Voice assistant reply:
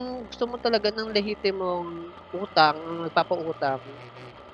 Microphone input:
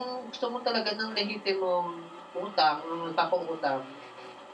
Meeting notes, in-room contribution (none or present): none